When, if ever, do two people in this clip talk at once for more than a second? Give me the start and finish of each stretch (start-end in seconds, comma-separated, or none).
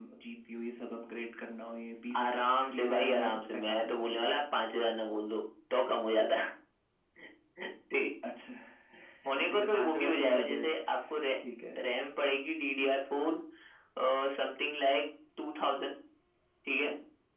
2.7-4.0, 9.4-10.7